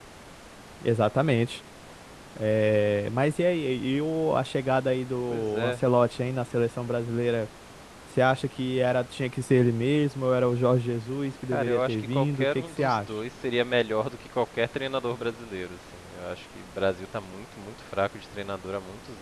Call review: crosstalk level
present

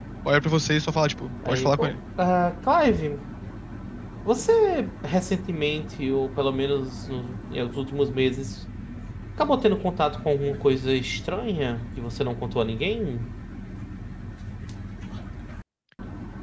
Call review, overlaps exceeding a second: none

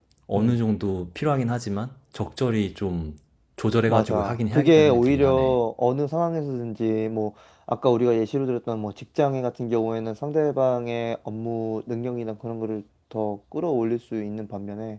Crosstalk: present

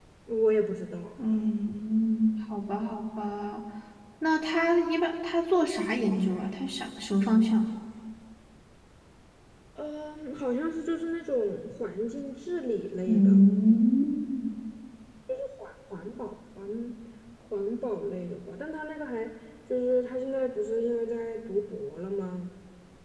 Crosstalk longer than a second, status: none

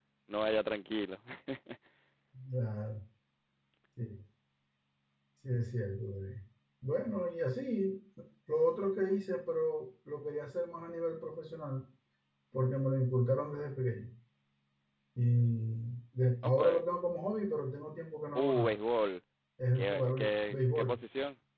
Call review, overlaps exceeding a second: present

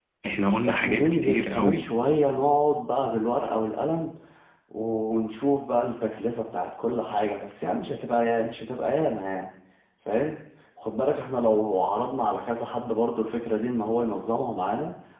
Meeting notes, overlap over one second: present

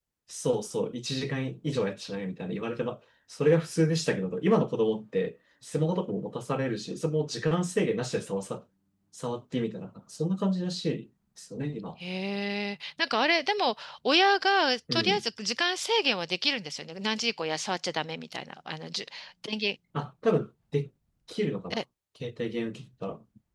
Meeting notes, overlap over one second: none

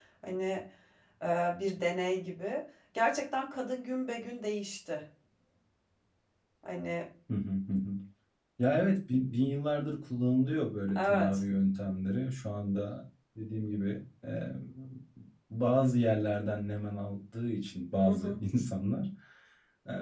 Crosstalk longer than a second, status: none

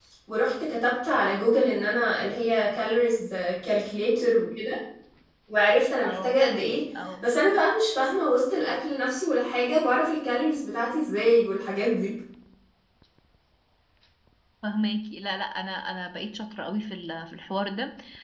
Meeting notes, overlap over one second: none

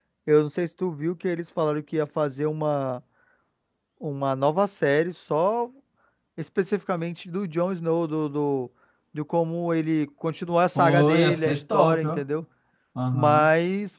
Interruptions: present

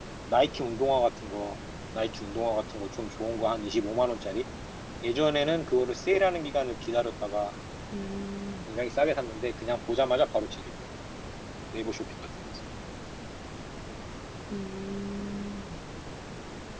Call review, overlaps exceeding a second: none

